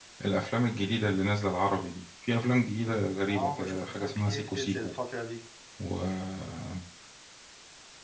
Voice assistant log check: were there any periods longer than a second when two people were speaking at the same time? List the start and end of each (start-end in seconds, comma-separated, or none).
3.3-4.9